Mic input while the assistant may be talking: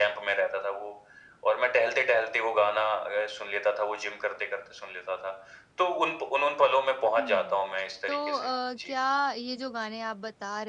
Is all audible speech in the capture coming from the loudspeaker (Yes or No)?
No